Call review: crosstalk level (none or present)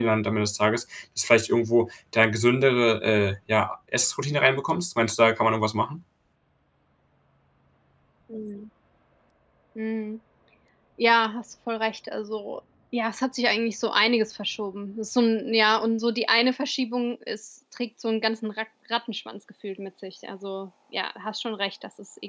none